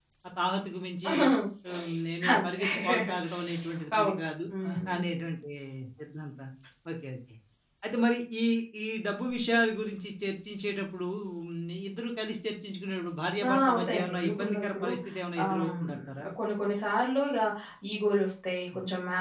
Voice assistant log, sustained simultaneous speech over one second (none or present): present